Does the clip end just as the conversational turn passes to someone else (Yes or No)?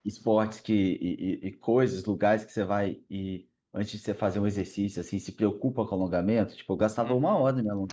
Yes